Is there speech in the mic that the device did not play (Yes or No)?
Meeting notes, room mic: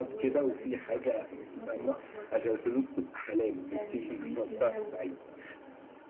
Yes